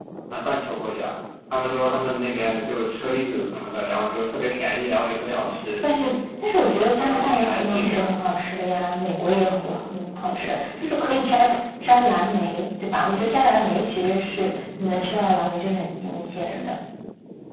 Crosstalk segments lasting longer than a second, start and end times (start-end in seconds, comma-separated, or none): 6.7-8.1